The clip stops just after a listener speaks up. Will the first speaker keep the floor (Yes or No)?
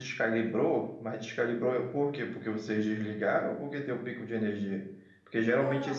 Yes